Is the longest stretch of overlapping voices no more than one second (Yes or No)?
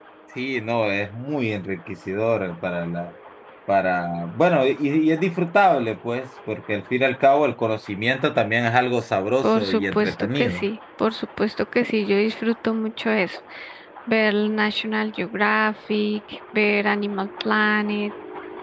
No